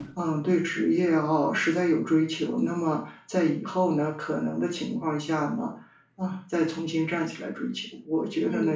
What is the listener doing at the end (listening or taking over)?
listening